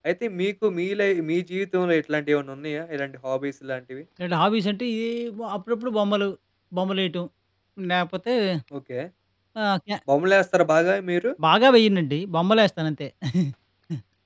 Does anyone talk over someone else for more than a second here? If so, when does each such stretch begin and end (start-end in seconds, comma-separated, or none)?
none